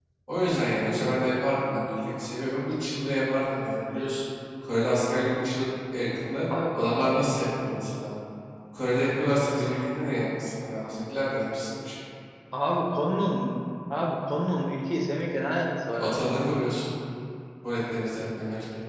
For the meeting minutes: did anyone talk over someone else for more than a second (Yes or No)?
No